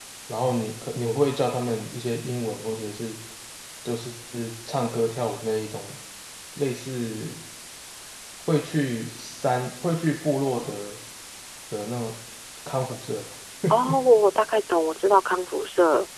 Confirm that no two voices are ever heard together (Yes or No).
Yes